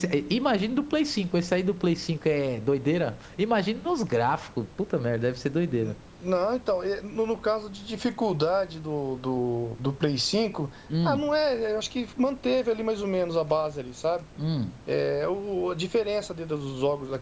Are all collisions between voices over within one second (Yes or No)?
Yes